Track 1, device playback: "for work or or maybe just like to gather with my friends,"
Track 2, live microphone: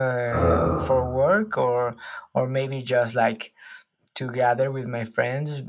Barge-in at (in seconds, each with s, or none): 0.3 s